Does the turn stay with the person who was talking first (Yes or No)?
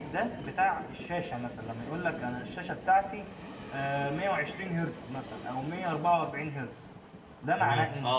No